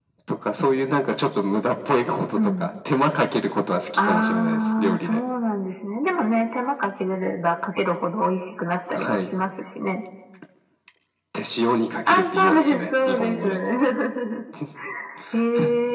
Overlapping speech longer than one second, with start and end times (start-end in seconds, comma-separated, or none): 4.0-5.2, 12.1-13.6